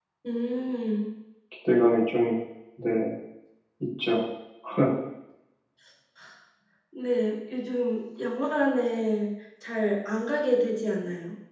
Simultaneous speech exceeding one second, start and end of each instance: none

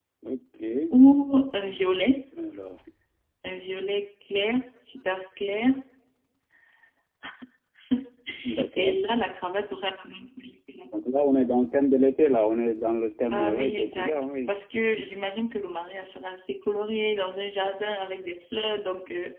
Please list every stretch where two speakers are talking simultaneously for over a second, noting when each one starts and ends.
13.3-14.5

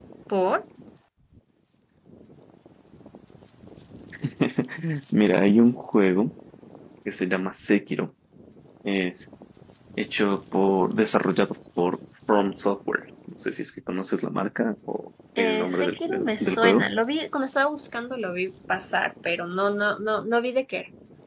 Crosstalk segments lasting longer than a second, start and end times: 15.4-16.9

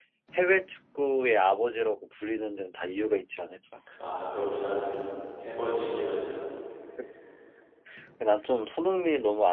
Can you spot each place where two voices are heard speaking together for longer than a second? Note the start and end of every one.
none

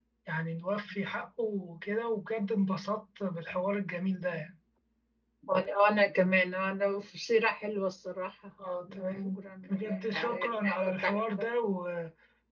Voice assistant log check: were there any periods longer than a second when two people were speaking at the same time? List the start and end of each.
8.9-11.5

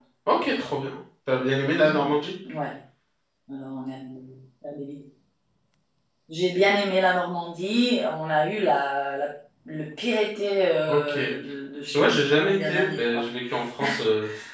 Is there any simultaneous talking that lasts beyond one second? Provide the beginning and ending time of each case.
11.9-13.2

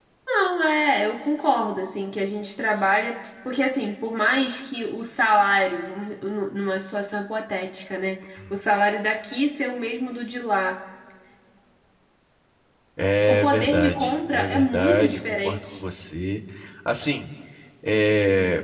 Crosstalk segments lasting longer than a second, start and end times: 13.3-15.8

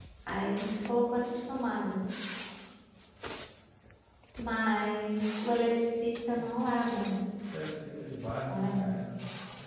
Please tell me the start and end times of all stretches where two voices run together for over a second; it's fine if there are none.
none

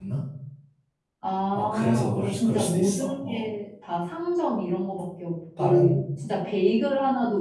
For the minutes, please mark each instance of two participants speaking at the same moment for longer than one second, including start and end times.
1.5-3.5

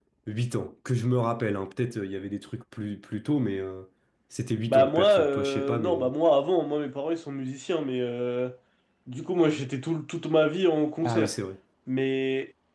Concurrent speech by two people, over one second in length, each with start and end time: 4.6-6.1

